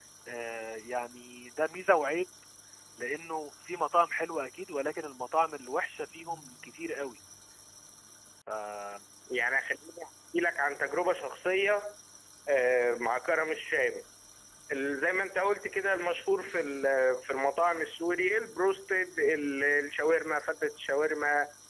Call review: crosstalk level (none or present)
none